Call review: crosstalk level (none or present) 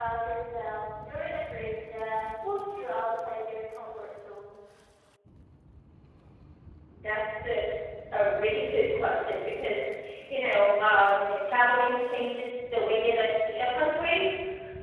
none